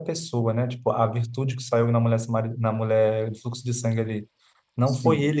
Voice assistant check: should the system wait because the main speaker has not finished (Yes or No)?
Yes